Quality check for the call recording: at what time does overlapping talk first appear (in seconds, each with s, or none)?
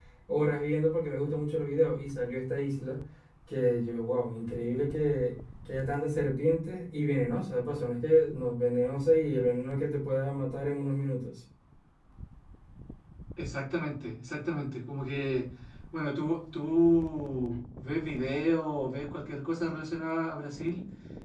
none